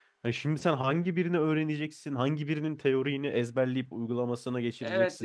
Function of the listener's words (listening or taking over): taking over